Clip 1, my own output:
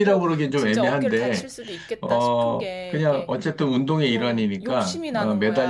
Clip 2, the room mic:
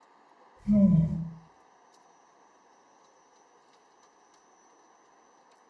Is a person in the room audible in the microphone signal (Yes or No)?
Yes